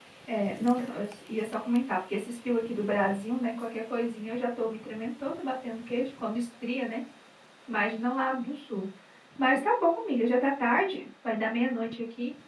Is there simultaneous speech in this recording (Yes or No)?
No